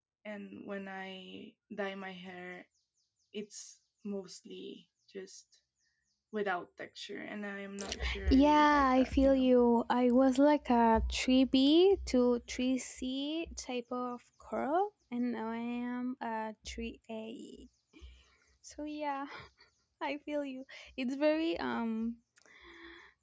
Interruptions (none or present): present